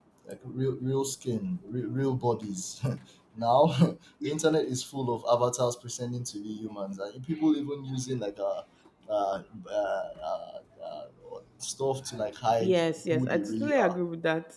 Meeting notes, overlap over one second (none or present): present